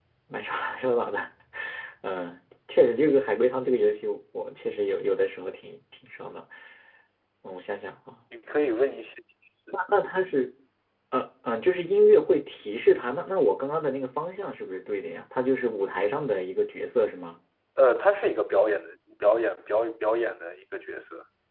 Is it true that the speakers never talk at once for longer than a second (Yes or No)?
Yes